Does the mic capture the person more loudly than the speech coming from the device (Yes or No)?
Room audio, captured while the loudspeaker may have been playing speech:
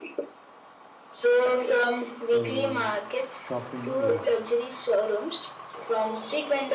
No